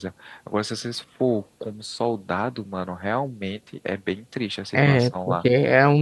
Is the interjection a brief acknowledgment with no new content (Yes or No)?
No